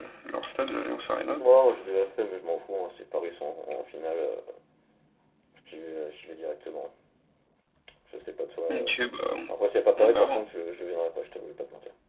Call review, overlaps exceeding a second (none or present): none